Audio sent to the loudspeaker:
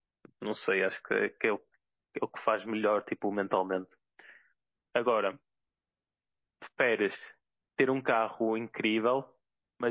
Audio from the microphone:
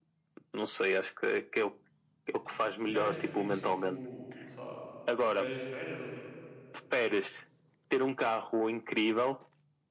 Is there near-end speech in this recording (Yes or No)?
Yes